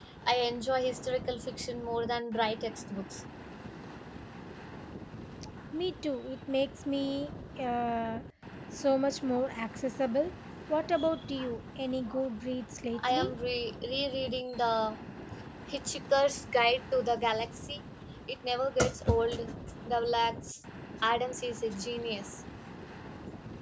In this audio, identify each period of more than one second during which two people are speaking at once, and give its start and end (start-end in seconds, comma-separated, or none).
none